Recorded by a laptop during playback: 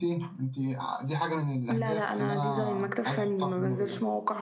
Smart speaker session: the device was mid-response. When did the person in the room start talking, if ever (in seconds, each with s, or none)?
1.7 s